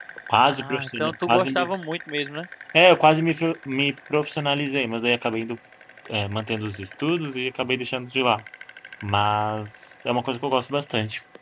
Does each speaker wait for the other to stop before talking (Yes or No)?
No